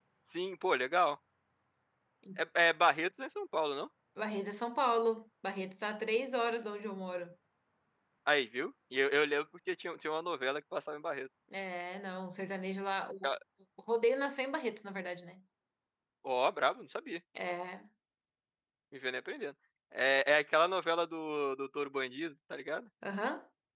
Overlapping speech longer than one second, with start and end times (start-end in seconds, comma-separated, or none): none